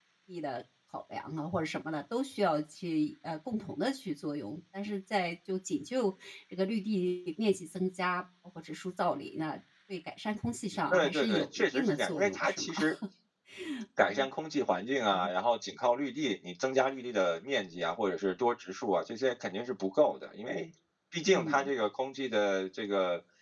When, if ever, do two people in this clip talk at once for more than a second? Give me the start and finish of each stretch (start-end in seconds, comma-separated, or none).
10.9-12.7